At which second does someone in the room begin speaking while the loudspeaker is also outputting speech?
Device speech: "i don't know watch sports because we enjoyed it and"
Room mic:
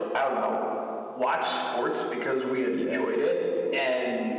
2.7 s

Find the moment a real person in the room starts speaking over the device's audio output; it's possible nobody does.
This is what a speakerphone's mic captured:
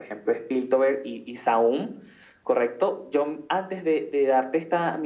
none

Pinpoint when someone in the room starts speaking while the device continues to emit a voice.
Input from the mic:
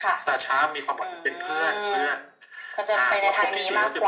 none

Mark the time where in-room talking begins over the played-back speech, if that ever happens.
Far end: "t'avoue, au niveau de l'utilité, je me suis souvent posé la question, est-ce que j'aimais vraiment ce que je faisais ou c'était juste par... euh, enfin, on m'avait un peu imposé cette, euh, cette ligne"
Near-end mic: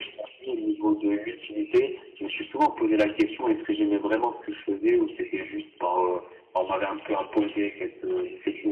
none

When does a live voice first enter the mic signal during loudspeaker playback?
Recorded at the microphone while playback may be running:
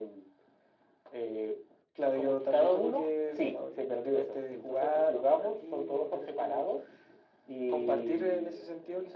none

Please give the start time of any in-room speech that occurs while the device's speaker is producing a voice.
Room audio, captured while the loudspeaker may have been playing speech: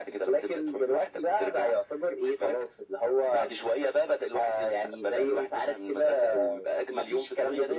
none

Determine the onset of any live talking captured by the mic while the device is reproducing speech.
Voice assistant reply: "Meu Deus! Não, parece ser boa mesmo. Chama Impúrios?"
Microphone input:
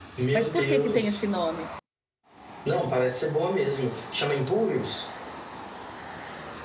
0.3 s

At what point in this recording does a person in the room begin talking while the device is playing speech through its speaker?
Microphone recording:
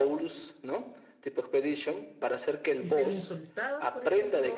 2.8 s

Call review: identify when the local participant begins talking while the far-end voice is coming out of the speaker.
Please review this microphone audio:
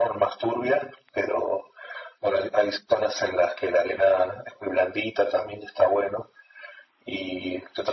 none

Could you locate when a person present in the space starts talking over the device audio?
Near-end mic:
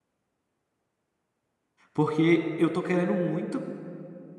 1.9 s

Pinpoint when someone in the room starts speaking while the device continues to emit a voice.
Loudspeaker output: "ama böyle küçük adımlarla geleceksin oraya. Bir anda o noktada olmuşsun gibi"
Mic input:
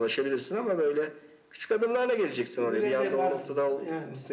2.6 s

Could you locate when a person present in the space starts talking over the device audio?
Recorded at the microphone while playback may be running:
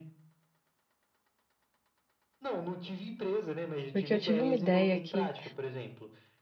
3.9 s

